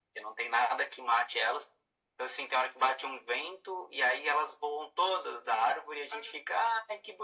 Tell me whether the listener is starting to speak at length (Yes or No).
No